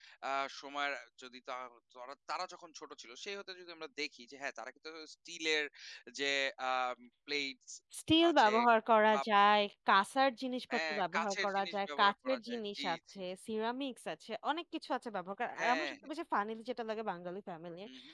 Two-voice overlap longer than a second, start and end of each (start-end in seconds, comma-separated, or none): 10.9-13.0